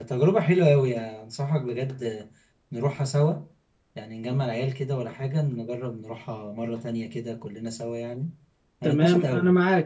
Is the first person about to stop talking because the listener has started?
Yes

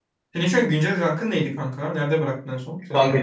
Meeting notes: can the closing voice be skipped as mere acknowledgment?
No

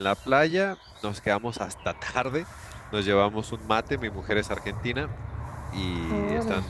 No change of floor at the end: Yes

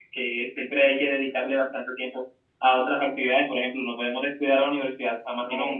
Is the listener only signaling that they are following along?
No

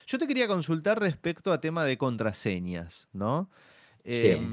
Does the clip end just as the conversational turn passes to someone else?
No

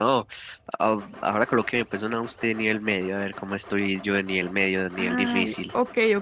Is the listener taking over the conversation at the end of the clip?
Yes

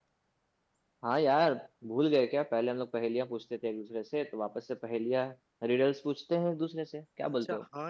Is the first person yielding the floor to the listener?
Yes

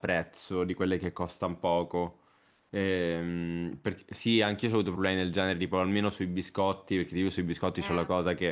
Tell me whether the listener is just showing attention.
Yes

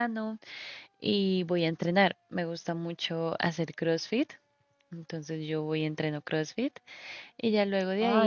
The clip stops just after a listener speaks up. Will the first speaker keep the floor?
No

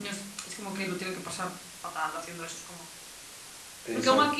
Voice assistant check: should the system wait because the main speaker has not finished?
Yes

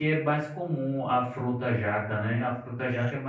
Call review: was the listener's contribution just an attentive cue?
Yes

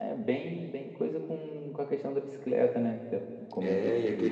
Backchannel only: No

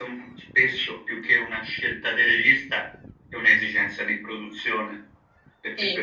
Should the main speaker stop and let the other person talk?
No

